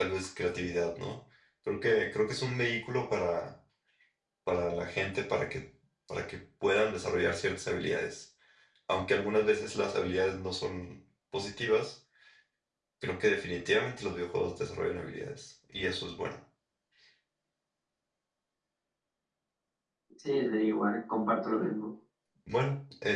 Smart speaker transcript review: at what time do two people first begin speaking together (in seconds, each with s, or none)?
none